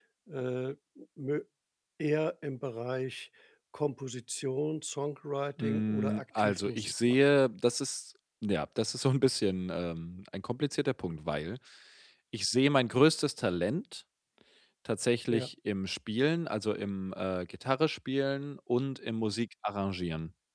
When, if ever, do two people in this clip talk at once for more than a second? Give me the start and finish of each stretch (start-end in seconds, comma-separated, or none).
5.6-7.2